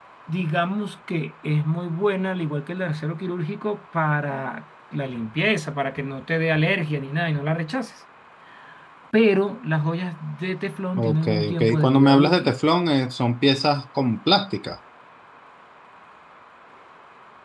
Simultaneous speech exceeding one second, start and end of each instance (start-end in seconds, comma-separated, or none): 11.0-12.5